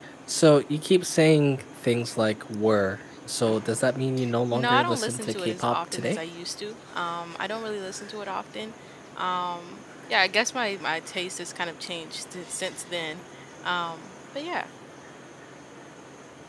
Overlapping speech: Yes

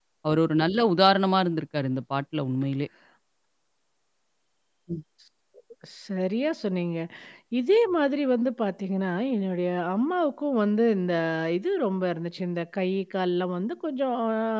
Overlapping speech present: No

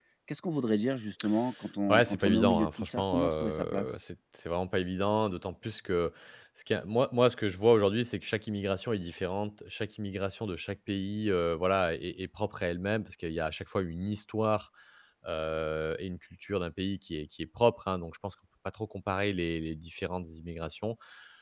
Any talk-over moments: Yes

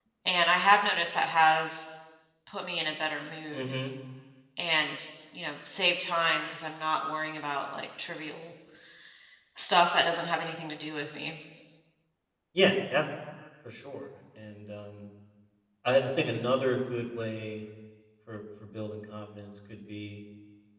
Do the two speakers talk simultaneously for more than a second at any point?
No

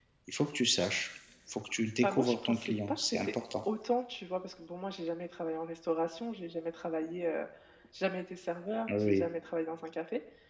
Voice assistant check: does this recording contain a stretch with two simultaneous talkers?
Yes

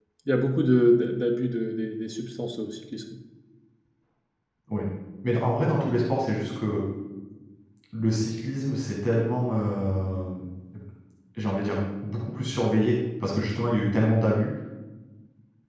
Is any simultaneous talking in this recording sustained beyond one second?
No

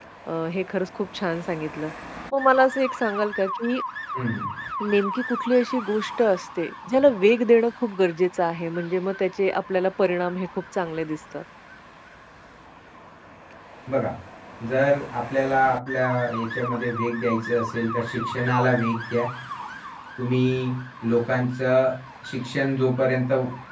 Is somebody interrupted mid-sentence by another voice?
No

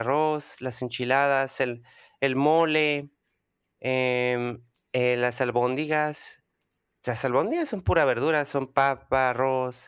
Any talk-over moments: No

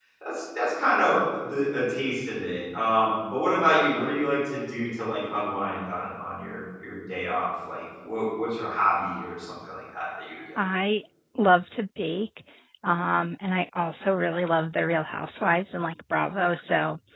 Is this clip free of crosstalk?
Yes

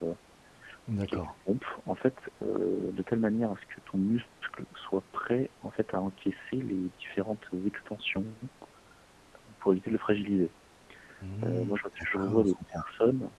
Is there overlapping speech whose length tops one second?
Yes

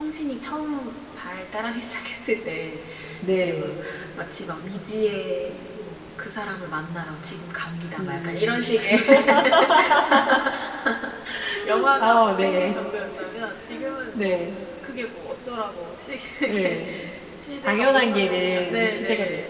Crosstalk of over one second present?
Yes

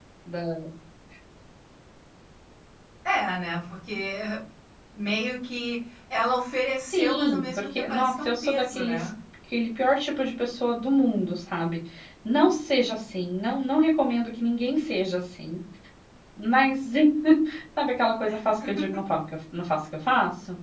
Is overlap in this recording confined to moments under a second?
No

